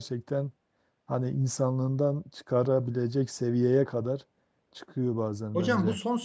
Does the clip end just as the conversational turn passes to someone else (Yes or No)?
Yes